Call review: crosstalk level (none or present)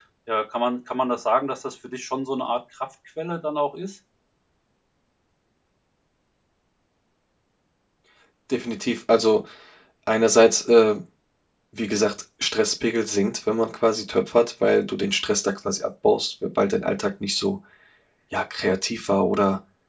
none